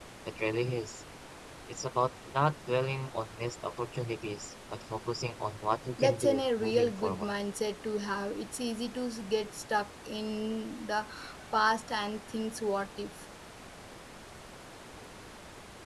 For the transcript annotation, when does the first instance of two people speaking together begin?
6.0 s

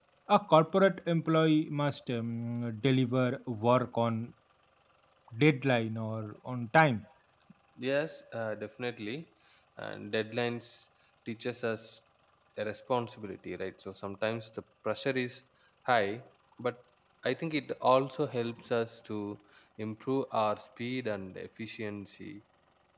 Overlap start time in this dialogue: none

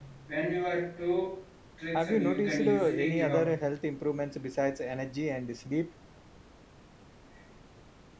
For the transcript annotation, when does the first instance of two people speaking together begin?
2.0 s

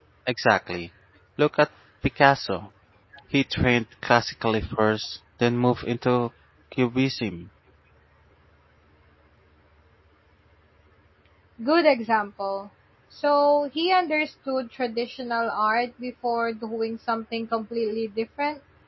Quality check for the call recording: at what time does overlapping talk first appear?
none

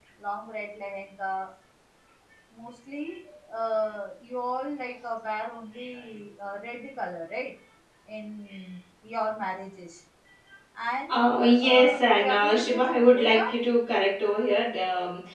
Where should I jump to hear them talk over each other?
11.6 s

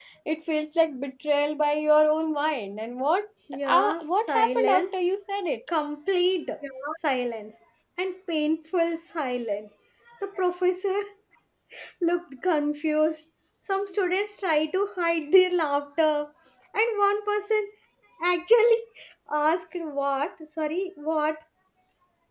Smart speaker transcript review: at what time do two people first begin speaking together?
3.7 s

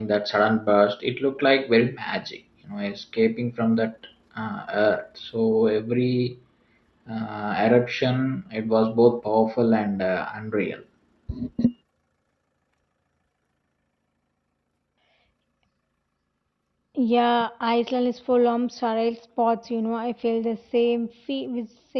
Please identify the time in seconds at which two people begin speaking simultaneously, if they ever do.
none

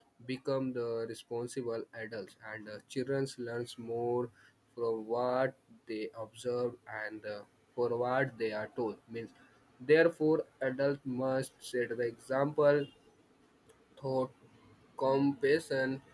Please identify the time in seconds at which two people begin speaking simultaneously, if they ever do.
none

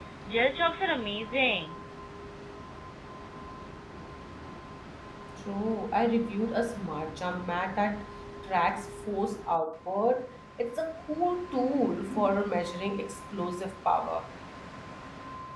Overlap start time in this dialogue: none

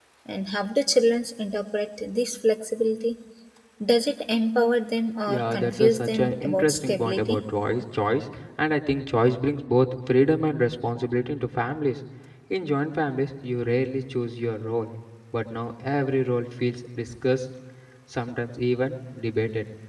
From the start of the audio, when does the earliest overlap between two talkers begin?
5.3 s

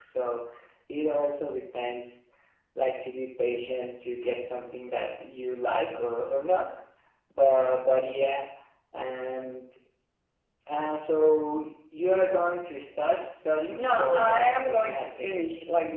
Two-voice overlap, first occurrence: 13.8 s

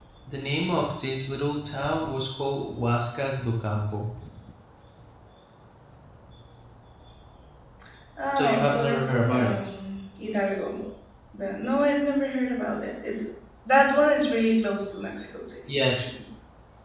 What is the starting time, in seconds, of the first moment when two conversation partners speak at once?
8.4 s

